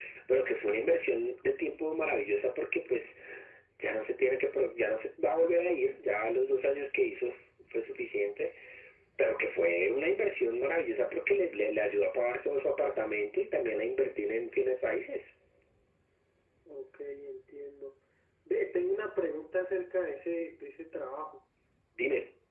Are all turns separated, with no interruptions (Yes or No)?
Yes